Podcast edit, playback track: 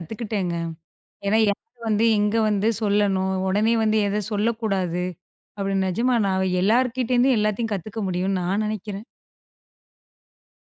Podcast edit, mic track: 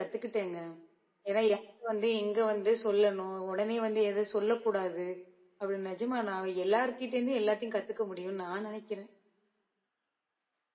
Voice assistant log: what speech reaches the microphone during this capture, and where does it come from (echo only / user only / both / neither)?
echo only